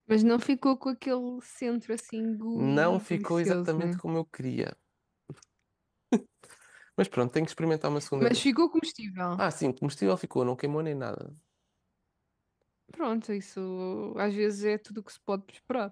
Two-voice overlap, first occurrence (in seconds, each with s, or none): 2.5 s